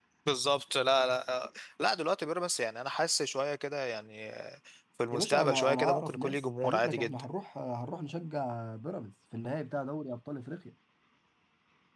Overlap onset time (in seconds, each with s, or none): 5.1 s